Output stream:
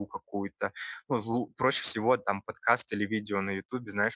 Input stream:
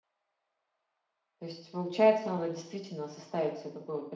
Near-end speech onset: 1 s

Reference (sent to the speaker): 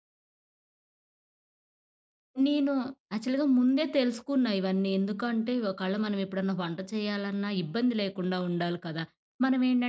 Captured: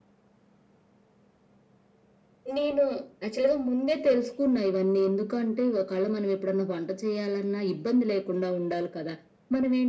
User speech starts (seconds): none

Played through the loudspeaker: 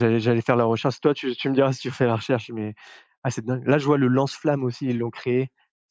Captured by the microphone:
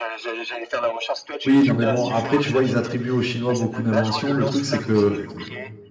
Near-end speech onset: 1 s

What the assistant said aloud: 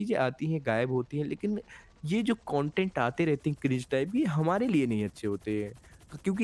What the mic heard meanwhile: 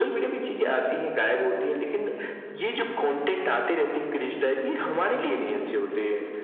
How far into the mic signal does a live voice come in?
none

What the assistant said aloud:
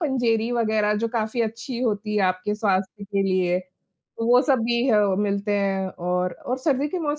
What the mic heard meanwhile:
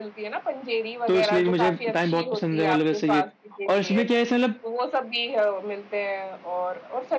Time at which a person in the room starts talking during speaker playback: 1 s

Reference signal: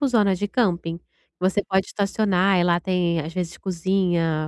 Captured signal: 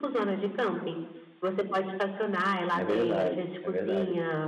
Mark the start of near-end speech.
3 s

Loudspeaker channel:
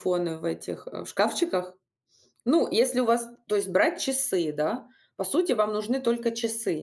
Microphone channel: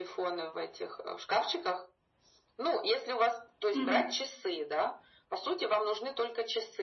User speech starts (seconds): 4 s

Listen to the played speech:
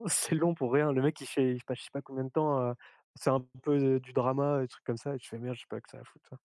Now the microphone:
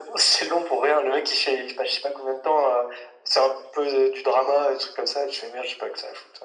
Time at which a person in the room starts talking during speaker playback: none

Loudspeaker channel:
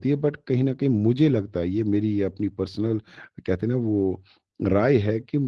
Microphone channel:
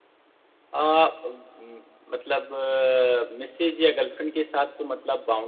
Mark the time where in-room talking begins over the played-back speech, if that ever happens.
1 s

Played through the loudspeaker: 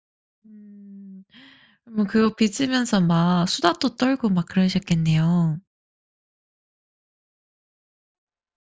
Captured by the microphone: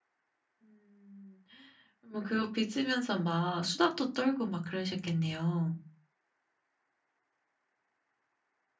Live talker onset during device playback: none

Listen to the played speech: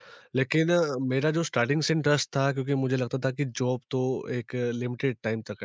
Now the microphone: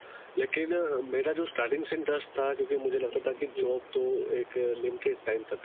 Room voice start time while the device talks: 3 s

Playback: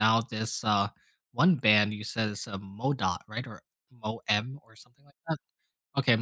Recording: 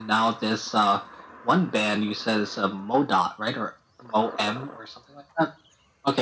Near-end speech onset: none

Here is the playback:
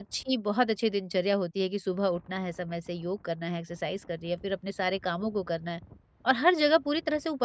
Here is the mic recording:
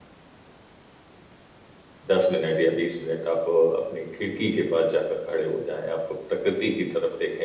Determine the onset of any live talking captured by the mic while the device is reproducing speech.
2 s

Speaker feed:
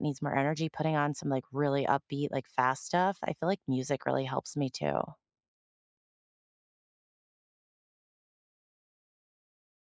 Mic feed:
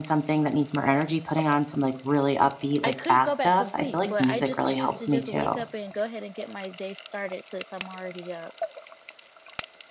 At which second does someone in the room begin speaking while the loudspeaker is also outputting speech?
3 s

